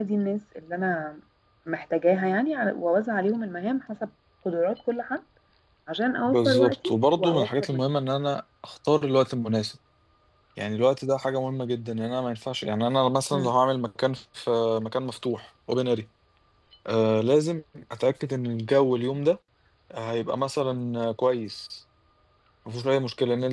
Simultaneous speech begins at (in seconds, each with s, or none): 6.2 s